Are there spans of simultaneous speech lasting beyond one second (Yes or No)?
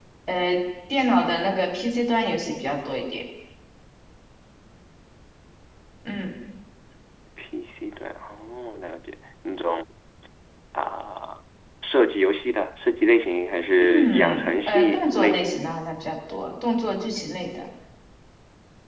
Yes